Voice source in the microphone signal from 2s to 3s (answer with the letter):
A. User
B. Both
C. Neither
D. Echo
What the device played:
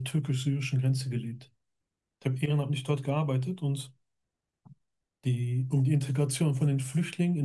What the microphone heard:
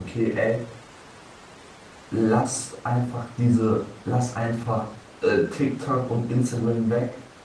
A